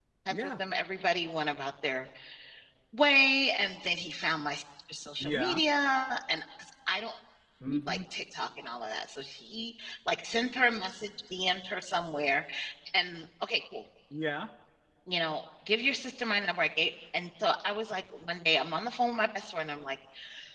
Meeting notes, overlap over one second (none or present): none